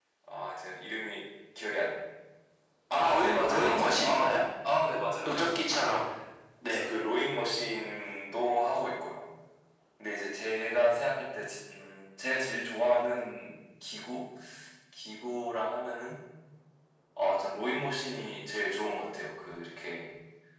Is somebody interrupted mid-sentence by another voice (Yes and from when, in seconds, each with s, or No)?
Yes, from 3.0 s